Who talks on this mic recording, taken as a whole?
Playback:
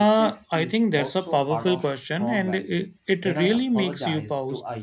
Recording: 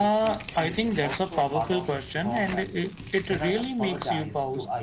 echo only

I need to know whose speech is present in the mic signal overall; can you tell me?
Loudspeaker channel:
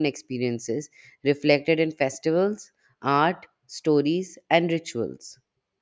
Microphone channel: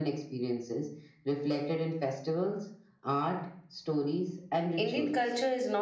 both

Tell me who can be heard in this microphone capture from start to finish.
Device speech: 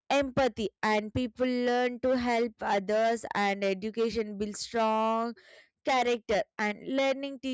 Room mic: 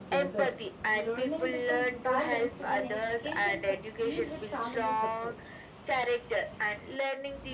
both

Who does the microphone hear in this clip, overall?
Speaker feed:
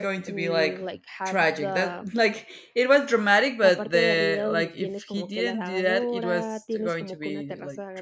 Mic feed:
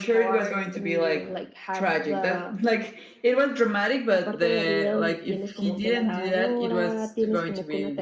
echo only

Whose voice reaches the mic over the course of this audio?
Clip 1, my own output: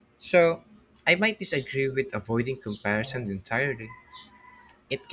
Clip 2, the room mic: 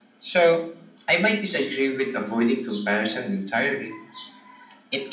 echo only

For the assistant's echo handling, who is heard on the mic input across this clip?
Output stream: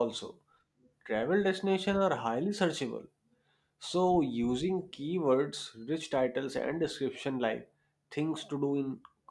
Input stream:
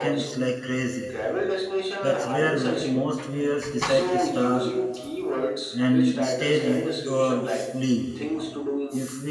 both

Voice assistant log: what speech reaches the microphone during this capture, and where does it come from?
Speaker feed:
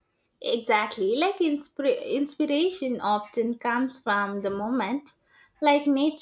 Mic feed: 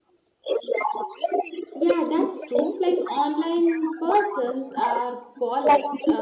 both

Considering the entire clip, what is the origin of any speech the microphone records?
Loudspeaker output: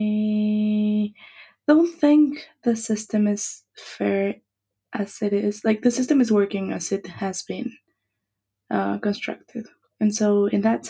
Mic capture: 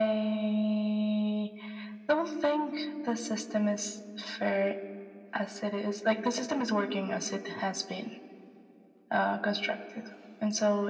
echo only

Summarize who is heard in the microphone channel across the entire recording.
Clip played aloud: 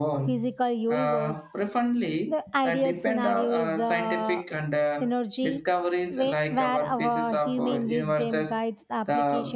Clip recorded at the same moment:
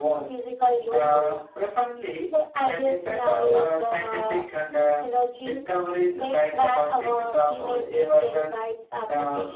echo only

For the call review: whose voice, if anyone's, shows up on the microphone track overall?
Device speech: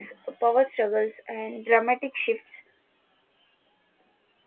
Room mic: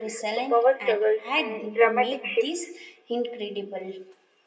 both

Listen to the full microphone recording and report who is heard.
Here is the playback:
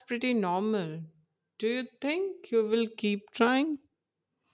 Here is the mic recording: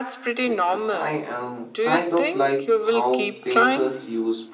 both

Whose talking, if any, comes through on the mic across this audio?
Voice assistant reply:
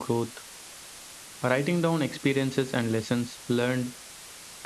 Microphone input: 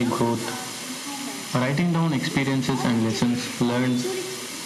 both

